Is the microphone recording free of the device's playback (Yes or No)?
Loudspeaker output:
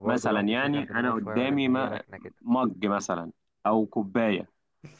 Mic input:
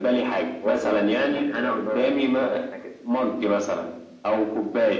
No